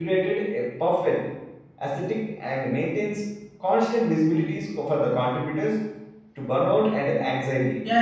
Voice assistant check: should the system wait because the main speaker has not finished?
No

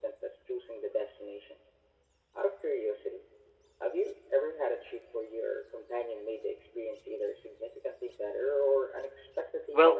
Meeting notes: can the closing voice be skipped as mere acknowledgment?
No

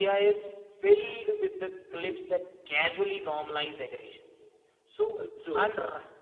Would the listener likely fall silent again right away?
Yes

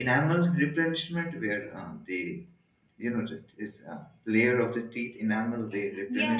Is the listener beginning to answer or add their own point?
Yes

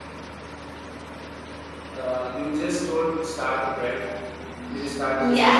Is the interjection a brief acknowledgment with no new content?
No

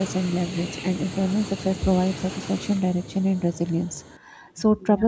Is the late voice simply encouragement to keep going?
Yes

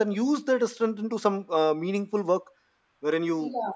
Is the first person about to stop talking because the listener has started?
No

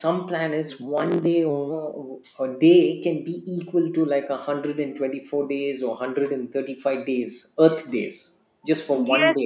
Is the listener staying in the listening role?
No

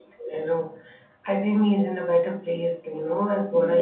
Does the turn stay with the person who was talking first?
Yes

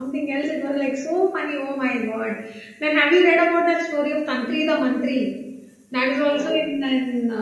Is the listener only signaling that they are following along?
Yes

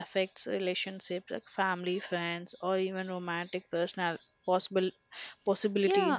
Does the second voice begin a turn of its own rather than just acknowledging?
Yes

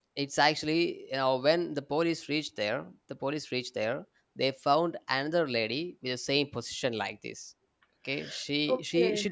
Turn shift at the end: No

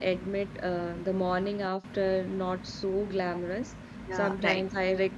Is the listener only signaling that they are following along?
Yes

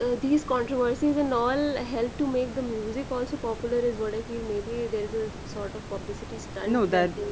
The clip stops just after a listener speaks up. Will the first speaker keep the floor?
No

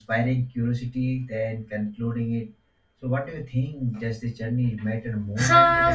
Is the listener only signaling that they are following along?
No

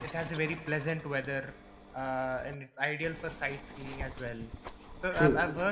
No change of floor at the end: Yes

